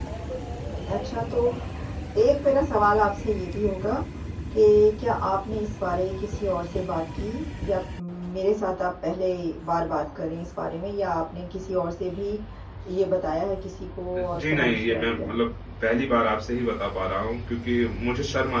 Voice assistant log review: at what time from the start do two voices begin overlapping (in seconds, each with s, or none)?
14.2 s